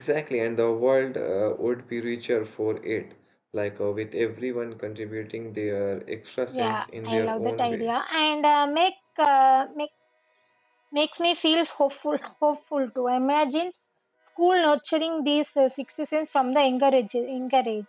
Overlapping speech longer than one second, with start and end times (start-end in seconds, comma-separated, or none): 6.5-7.9